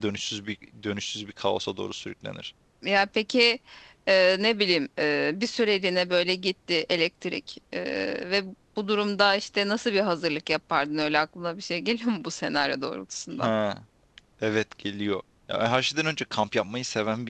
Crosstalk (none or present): none